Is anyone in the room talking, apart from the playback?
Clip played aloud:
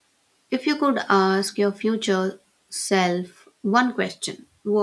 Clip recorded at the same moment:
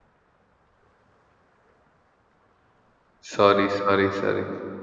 Yes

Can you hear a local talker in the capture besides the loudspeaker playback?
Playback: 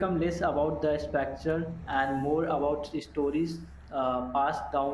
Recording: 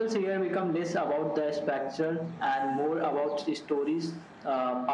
No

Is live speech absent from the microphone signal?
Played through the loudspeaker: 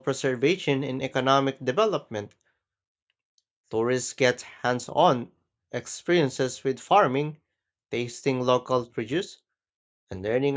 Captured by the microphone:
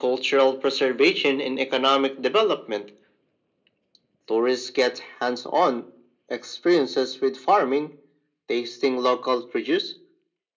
Yes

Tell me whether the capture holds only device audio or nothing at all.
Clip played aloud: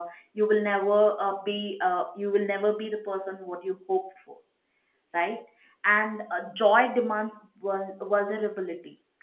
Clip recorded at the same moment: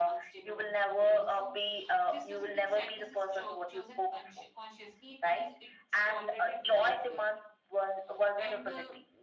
No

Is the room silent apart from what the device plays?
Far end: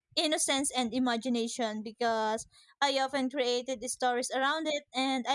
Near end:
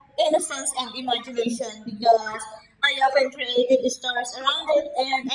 Yes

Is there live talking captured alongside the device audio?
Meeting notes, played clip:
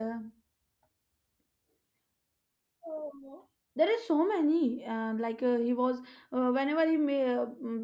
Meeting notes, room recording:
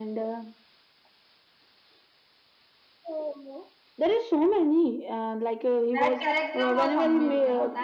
Yes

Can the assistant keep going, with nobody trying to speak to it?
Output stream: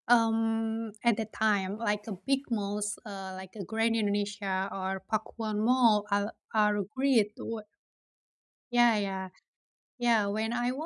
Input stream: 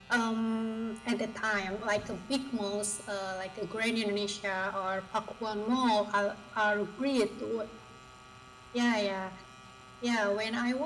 Yes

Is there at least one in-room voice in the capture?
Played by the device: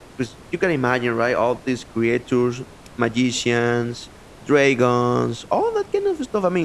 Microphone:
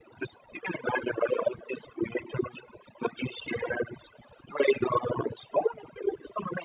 No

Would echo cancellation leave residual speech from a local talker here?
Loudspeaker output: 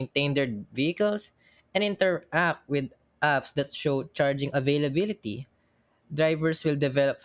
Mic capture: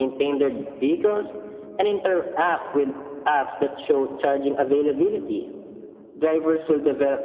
No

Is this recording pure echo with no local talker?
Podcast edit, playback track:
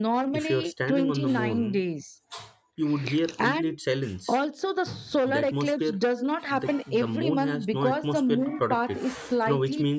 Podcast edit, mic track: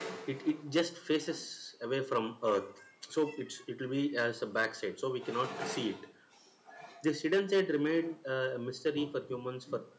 No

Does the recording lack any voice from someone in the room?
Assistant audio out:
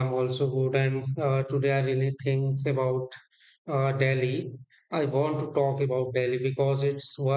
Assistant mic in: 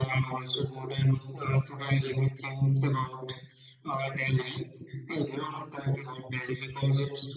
Yes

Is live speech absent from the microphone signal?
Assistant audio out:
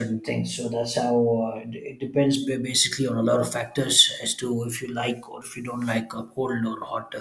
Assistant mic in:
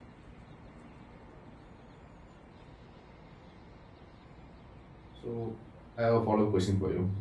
No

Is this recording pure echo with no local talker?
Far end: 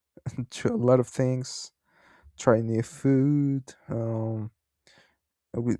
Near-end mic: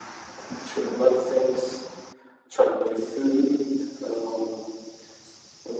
Yes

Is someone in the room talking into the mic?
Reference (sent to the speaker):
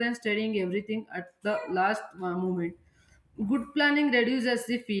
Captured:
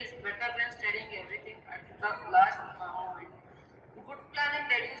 No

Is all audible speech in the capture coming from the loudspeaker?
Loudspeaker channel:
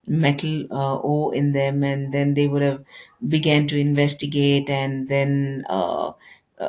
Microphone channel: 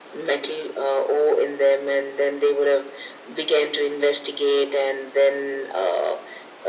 Yes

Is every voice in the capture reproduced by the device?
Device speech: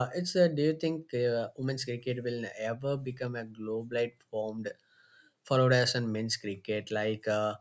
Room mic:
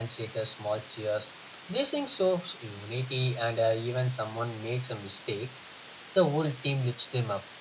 No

